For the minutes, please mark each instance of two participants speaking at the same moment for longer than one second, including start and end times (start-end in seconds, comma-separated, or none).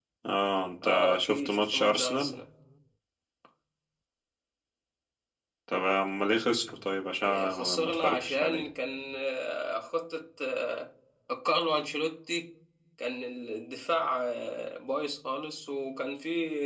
0.8-2.4, 7.2-8.7